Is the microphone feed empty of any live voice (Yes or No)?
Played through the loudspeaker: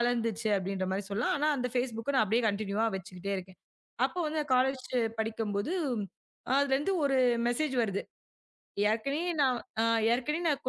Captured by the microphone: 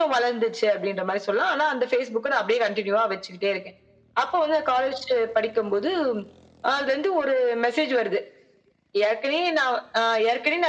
Yes